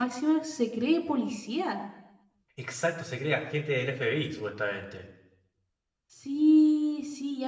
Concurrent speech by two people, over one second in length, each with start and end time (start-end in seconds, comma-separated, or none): none